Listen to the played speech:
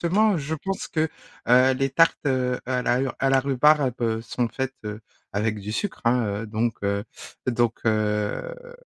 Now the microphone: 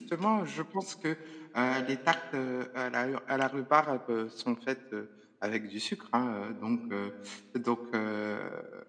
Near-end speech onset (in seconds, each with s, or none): none